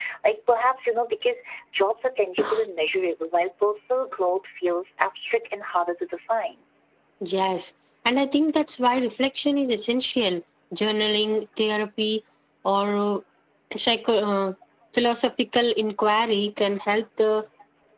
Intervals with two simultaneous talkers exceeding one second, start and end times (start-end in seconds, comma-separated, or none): none